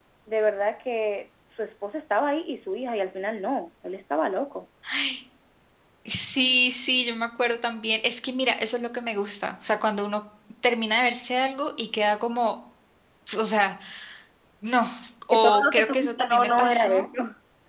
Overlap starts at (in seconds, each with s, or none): 15.3 s